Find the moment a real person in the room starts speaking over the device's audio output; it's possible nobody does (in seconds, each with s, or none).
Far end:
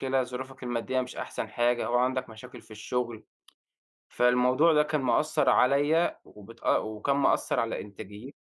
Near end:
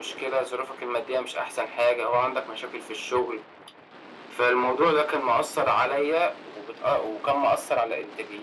none